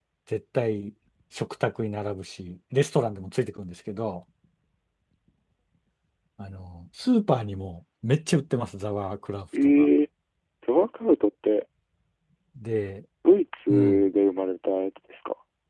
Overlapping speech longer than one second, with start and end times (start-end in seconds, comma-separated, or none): none